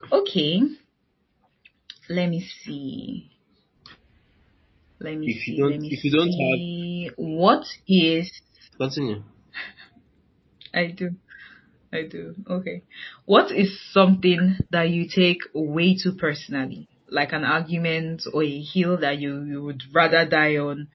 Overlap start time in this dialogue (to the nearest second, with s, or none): 5 s